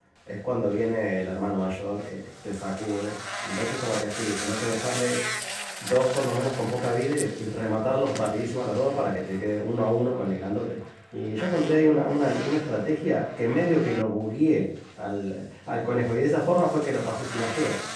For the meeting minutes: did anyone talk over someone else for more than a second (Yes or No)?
No